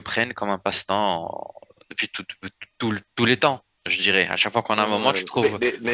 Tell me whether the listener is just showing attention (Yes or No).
No